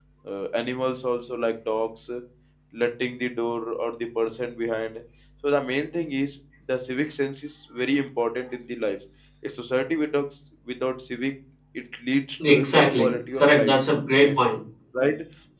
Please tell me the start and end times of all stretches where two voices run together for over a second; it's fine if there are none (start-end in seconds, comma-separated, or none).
12.5-13.7